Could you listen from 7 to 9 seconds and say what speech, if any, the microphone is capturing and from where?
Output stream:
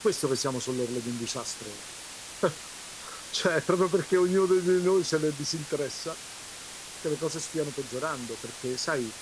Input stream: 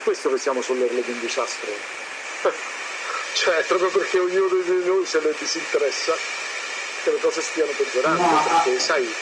both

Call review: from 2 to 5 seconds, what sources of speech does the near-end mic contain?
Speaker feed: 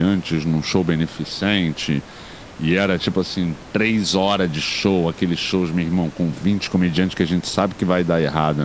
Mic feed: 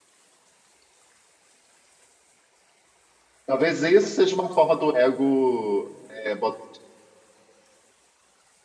user only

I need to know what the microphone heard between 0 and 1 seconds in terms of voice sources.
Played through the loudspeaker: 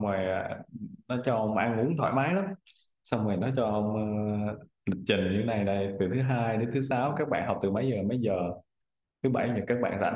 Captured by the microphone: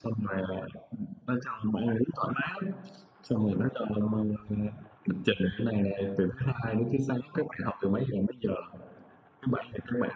echo only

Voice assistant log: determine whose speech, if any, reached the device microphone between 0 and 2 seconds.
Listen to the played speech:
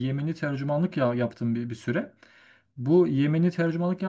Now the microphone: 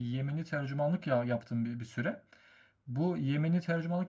echo only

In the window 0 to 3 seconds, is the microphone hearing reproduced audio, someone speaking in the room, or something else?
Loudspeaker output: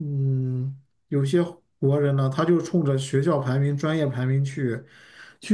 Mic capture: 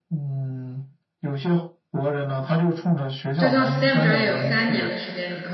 echo only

